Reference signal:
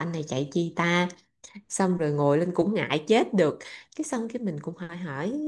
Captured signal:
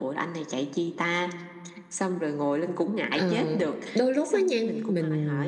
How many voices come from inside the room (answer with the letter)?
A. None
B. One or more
B